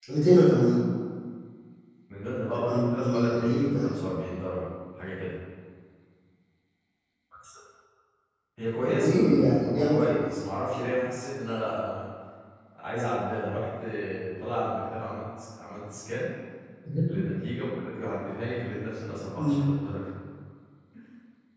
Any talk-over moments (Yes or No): Yes